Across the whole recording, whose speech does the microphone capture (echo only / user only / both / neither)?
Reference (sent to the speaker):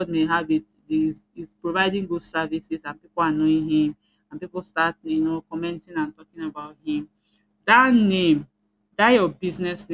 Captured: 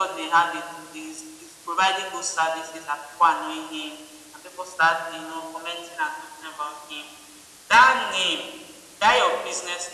echo only